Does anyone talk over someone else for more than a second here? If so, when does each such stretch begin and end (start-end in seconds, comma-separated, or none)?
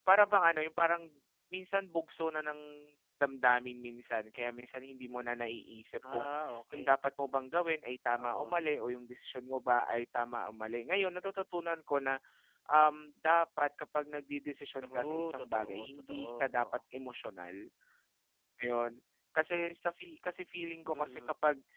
14.8-16.6